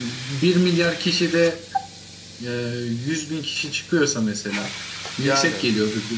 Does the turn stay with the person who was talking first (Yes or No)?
Yes